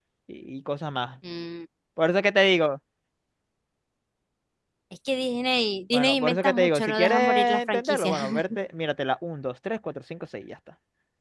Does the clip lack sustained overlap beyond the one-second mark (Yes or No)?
No